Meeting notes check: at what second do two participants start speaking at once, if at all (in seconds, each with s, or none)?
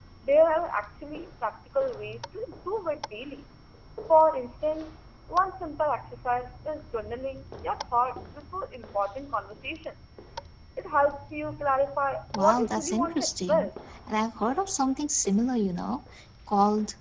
12.3 s